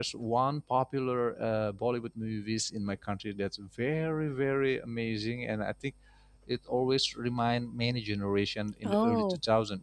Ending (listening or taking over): listening